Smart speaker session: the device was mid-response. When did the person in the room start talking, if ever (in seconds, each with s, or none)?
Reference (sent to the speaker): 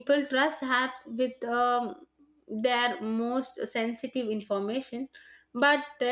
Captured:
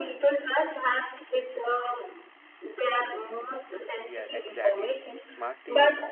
4.0 s